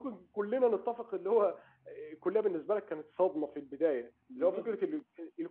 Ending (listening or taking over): listening